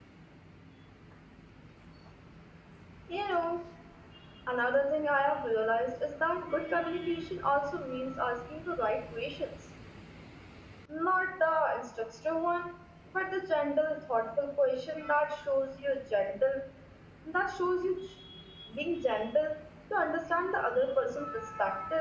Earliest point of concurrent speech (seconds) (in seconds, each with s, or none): none